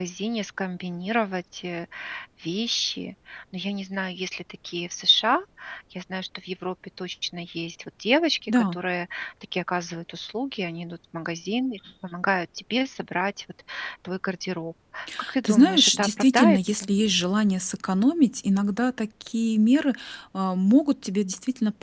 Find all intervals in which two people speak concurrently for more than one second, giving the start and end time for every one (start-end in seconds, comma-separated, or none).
15.4-16.9